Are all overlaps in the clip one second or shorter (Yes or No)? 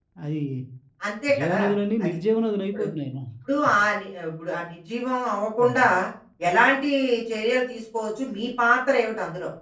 Yes